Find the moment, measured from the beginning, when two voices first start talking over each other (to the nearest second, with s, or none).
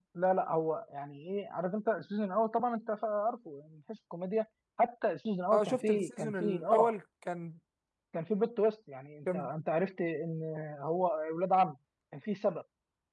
6 s